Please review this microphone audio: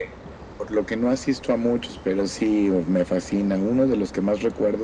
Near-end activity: none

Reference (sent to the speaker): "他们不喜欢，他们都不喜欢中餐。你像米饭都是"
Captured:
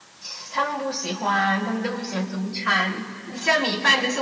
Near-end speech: none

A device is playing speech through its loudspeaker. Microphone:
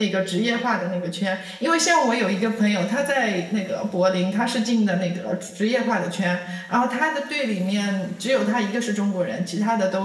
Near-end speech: present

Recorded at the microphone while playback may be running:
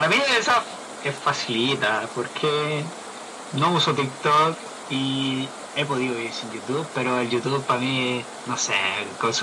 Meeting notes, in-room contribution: none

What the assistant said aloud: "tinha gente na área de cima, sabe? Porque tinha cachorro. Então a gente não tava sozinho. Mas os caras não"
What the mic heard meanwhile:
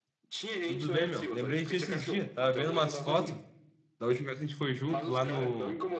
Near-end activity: present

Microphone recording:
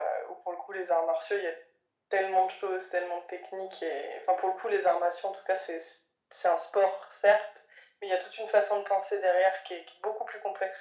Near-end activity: none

